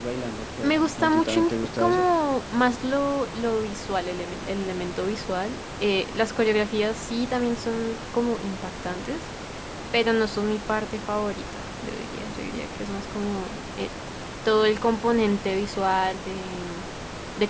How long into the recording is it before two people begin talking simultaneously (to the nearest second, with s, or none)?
1 s